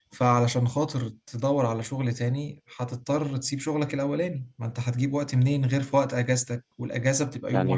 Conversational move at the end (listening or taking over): taking over